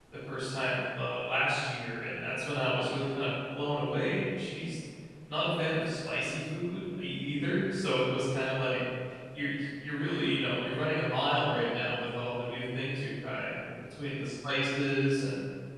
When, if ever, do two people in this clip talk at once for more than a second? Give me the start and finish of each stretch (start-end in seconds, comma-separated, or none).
none